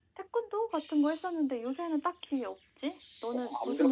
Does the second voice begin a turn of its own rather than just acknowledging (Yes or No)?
Yes